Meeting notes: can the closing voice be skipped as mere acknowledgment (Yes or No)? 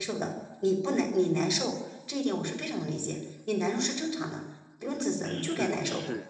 No